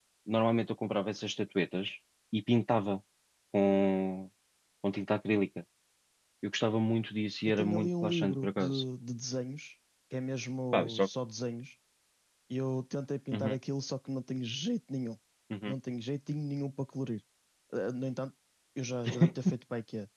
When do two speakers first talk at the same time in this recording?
7 s

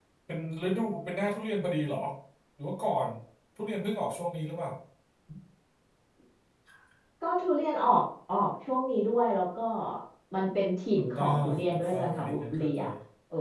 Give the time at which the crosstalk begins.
11 s

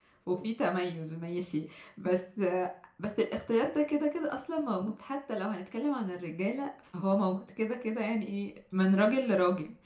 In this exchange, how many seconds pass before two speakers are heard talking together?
none

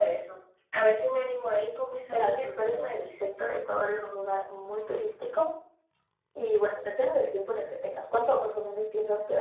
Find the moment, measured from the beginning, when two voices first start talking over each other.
2 s

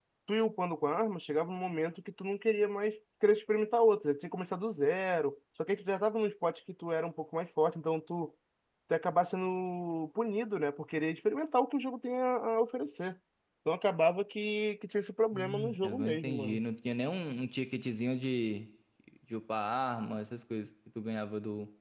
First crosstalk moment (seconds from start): 15 s

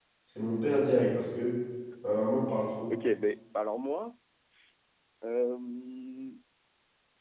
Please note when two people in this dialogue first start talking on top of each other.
none

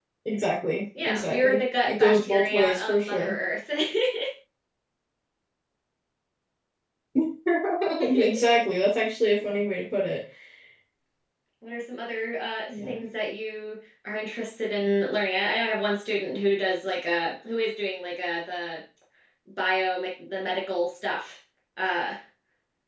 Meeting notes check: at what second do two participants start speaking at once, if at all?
1 s

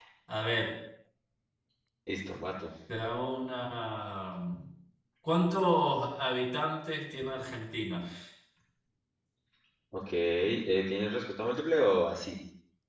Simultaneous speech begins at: none

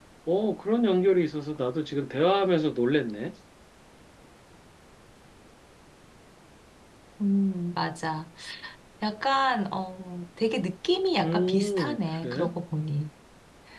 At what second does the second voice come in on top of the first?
11 s

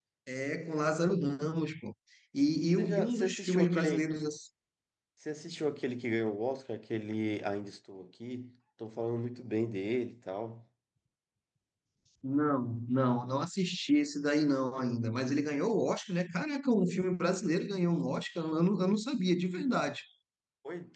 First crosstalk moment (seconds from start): 3 s

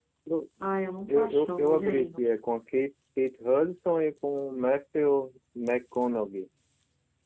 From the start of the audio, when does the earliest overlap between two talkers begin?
1 s

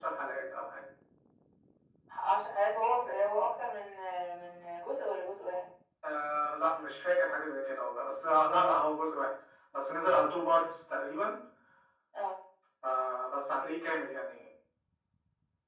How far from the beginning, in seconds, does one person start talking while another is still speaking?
none

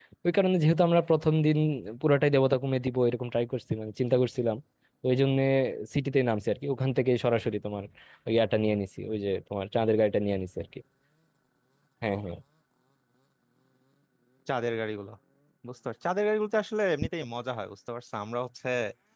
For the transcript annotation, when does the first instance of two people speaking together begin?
none

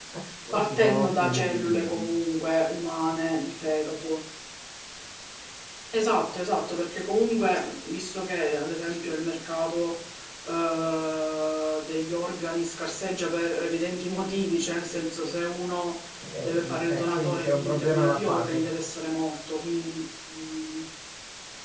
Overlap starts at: 1 s

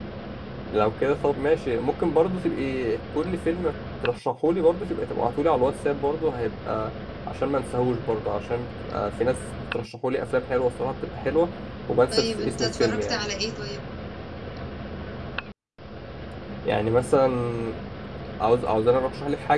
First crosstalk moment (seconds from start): 12 s

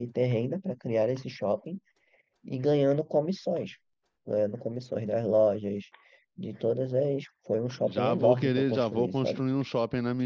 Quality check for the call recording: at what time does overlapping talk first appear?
8 s

